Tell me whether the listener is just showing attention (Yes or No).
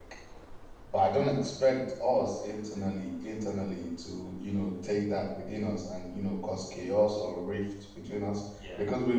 Yes